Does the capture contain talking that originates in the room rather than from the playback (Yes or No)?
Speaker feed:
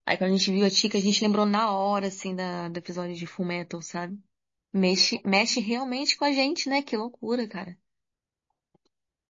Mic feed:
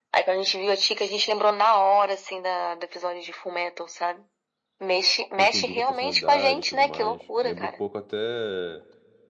Yes